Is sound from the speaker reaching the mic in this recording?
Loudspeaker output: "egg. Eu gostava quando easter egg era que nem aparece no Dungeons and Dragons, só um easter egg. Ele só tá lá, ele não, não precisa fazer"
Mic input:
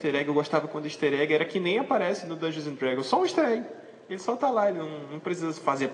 Yes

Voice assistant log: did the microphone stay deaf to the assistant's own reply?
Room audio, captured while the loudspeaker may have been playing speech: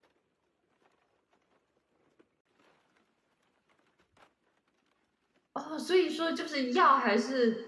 Yes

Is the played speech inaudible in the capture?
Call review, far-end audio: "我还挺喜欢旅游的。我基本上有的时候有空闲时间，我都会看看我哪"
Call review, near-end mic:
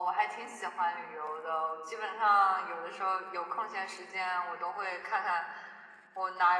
No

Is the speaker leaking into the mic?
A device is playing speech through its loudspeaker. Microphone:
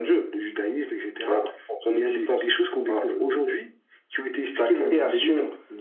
Yes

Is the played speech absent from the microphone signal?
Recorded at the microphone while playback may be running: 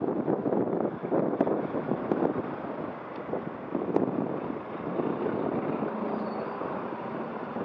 Yes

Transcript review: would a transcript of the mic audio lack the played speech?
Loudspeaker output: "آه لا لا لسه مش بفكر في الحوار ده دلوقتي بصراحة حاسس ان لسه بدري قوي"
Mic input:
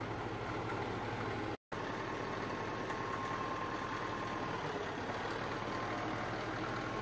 Yes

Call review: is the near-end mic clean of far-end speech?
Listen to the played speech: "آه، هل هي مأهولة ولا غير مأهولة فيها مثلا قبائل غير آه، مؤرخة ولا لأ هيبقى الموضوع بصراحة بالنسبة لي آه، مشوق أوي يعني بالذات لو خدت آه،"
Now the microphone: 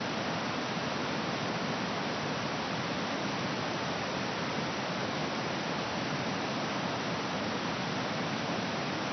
Yes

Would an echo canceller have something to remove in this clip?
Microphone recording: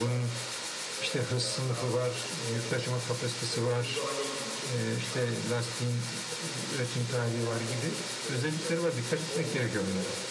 Yes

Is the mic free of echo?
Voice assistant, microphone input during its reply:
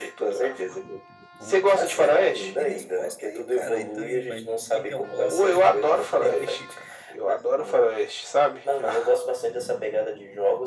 No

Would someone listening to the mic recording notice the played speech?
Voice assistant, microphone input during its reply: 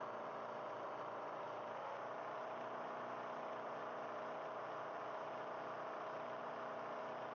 No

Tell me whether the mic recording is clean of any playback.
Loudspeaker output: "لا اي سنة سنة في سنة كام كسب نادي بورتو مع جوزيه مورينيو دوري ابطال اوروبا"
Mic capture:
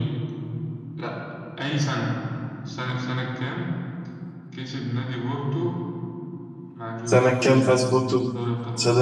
No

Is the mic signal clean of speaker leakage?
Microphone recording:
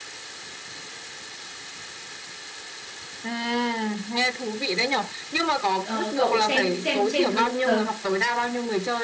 No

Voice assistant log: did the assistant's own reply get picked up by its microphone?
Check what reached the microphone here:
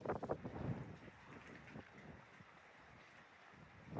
No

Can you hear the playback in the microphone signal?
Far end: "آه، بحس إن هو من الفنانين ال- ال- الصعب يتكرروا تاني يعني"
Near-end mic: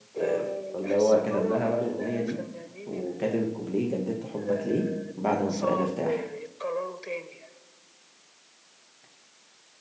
Yes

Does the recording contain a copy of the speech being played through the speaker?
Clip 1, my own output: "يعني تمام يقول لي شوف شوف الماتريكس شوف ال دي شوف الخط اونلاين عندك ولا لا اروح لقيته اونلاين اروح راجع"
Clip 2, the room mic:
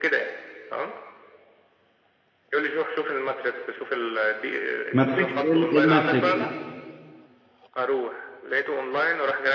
Yes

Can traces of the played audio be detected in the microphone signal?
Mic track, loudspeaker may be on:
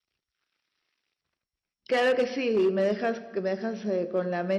No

